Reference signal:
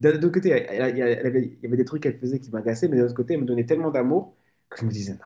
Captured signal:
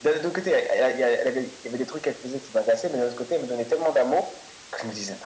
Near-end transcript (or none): none